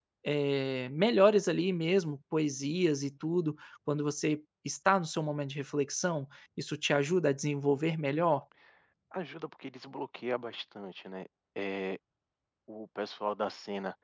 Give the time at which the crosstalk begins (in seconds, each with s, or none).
none